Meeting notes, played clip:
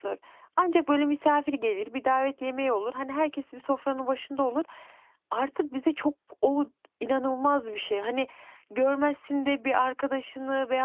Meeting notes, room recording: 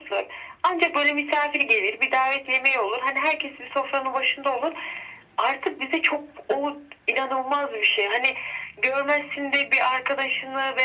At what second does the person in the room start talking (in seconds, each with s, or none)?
none